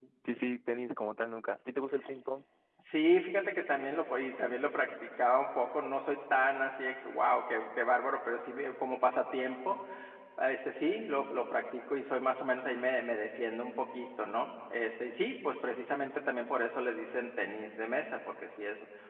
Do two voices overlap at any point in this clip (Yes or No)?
No